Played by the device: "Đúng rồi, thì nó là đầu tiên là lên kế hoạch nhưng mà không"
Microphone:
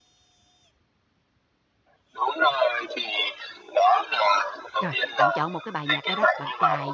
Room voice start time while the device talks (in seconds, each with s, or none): 4.8 s